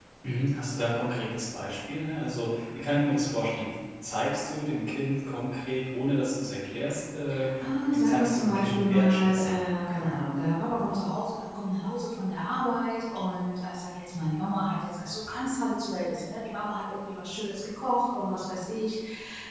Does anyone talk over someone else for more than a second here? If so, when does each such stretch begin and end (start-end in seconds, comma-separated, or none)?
7.9-9.6